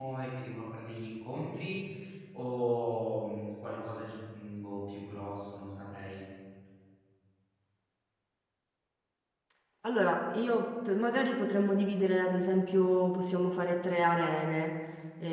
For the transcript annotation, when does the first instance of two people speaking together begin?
none

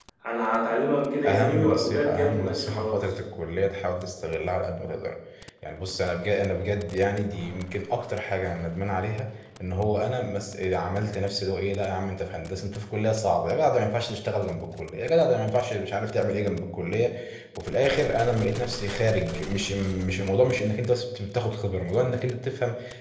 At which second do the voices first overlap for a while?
1 s

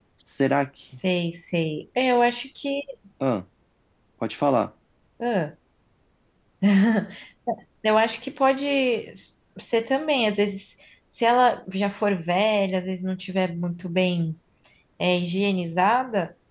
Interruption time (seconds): none

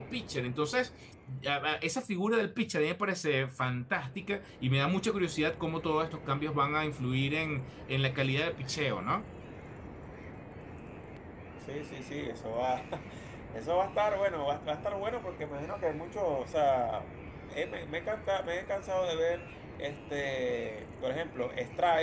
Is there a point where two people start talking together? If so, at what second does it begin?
none

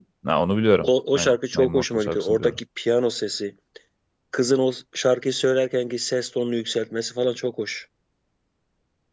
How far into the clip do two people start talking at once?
1 s

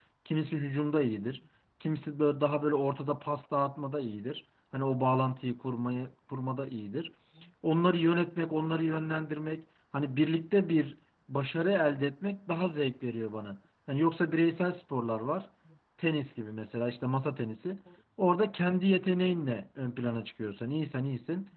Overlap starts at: none

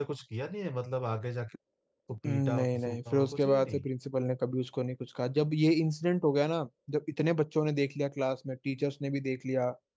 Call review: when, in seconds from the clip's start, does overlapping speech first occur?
2 s

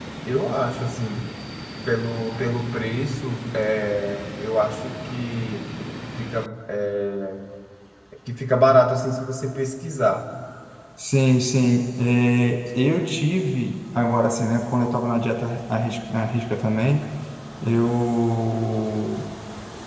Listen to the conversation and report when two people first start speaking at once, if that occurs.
none

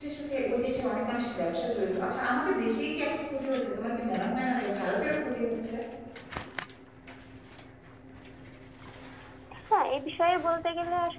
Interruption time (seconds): none

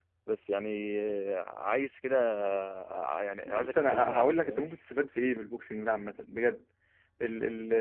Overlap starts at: 3 s

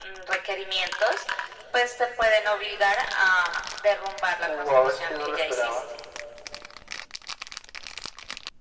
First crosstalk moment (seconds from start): 4 s

